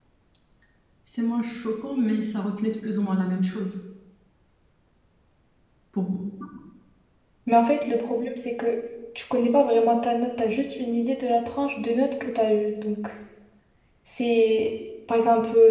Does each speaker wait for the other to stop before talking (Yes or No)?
Yes